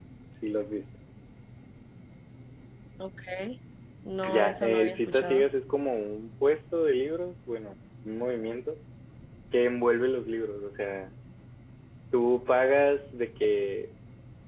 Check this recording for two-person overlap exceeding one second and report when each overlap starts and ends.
4.2-5.5

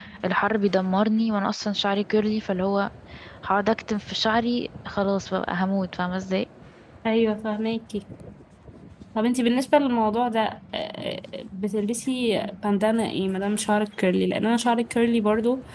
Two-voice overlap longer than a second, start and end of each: none

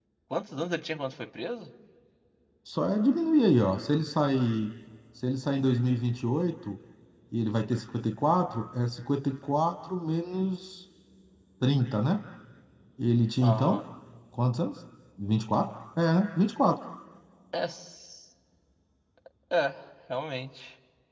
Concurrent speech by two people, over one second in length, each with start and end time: none

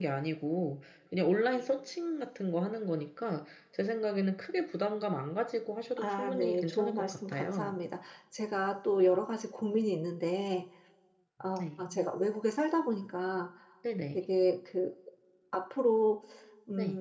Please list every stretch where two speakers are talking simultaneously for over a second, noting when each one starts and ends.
6.0-7.8

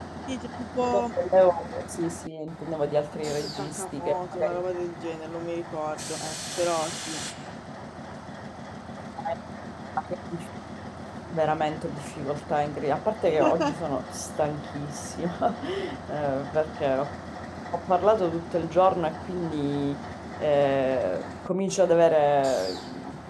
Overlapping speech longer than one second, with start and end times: 3.1-4.6

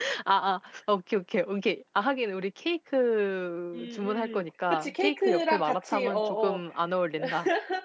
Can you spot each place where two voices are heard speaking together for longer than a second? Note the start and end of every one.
3.7-6.6

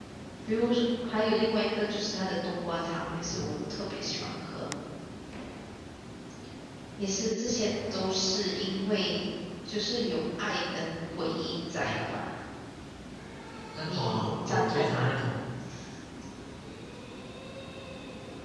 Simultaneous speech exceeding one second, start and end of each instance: 13.9-15.1

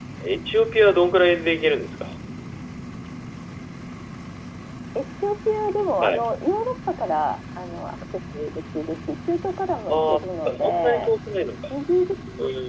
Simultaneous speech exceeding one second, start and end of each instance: 9.9-11.1

